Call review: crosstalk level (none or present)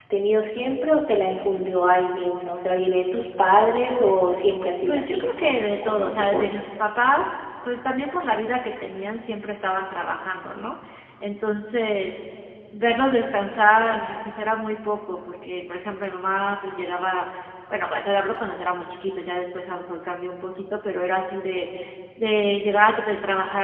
present